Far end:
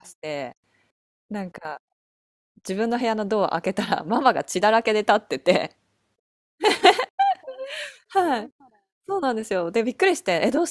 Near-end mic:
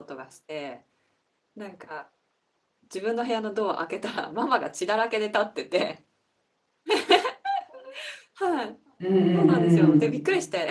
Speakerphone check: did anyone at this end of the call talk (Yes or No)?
Yes